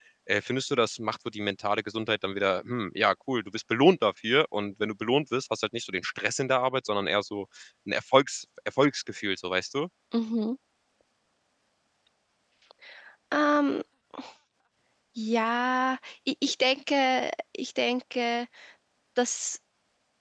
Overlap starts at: none

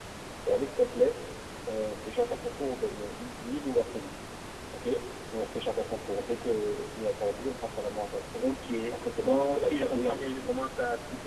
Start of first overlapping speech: 9 s

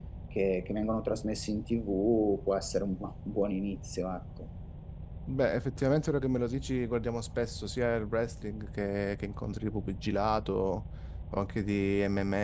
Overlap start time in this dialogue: none

